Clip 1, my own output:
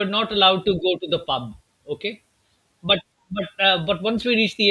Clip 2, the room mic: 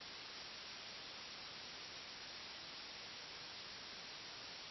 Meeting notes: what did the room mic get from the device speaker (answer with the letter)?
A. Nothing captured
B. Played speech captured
A